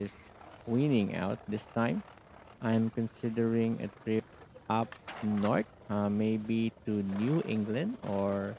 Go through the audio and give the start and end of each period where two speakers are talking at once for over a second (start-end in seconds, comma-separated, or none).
none